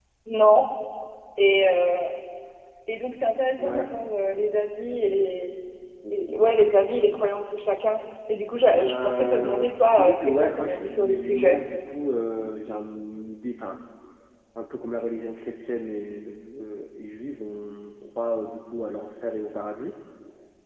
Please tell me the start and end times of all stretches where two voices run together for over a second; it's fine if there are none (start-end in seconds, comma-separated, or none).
8.8-11.6